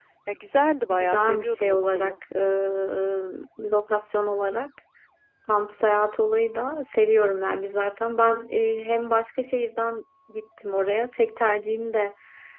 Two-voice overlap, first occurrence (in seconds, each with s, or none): 0.9 s